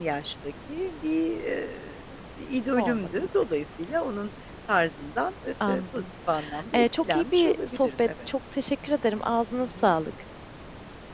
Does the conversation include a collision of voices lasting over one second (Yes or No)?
Yes